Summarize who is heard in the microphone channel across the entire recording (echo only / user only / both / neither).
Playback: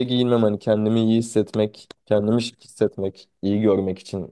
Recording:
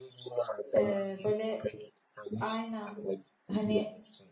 both